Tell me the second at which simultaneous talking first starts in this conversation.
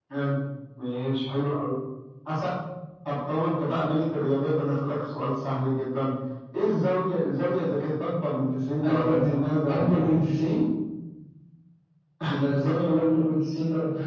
8.8 s

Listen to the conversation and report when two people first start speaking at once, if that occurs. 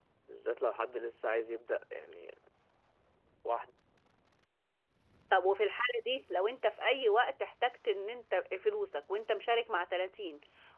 none

